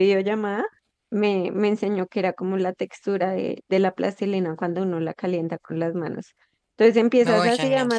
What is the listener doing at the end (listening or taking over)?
listening